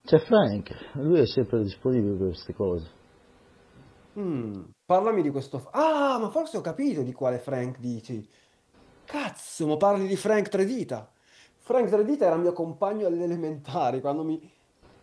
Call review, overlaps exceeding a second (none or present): none